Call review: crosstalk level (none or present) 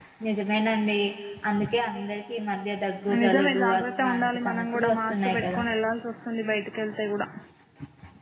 present